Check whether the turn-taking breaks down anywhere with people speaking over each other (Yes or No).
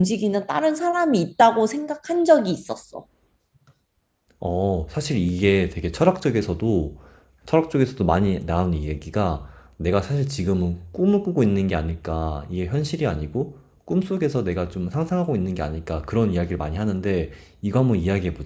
No